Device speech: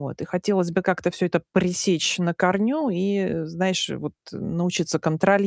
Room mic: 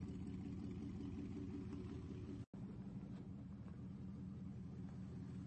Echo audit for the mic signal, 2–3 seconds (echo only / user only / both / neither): neither